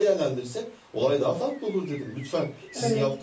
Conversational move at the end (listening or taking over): listening